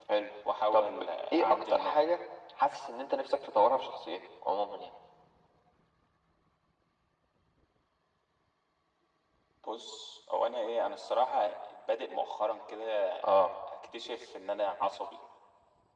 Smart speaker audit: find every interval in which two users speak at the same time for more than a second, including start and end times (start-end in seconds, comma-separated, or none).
0.7-2.0